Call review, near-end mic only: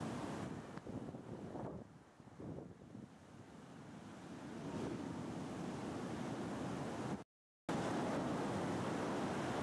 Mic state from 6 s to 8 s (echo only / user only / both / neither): neither